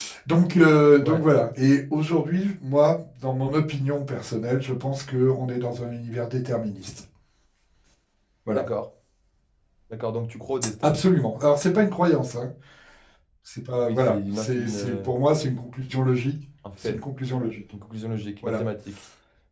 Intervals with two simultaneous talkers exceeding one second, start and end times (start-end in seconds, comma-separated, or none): 13.8-15.1